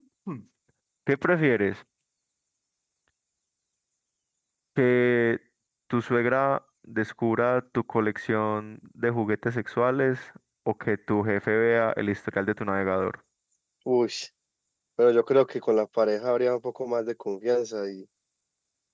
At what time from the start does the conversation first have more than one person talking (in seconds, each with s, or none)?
none